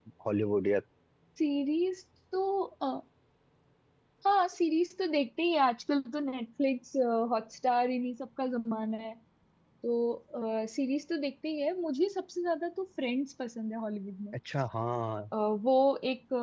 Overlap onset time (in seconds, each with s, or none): none